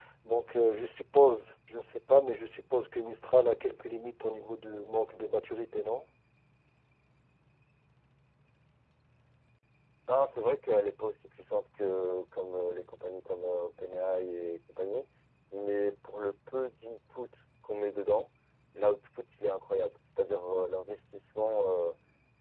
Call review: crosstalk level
none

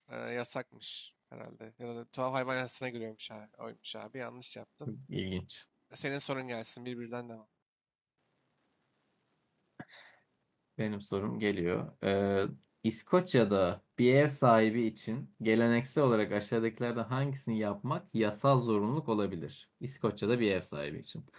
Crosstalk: none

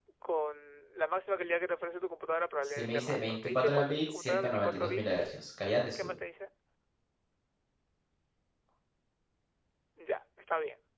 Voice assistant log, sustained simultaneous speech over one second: present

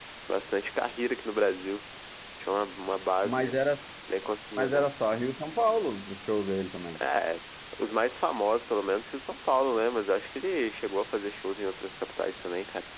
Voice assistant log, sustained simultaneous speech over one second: none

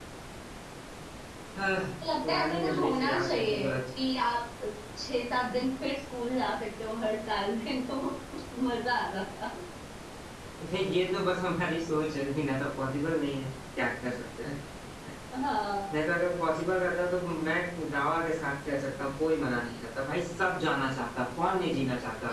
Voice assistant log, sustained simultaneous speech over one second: present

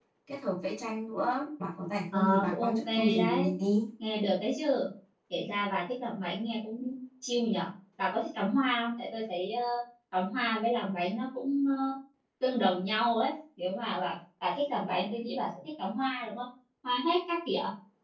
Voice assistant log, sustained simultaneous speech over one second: present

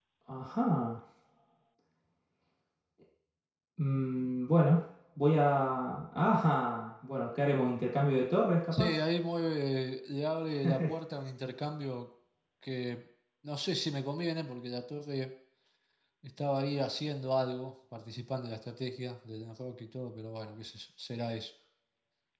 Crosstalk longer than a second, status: none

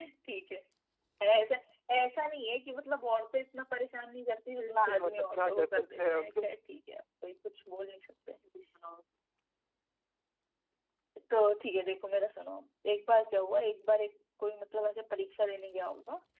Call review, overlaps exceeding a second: present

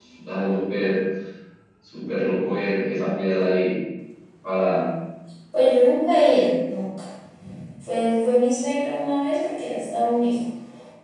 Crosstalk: none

